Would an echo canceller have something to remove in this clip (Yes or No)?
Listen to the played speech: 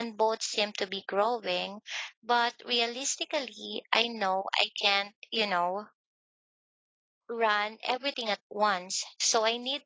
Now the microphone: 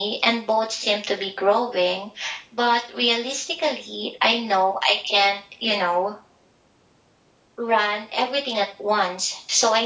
Yes